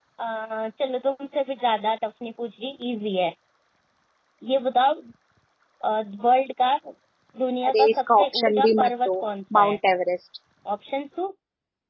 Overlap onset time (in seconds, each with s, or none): 7.7 s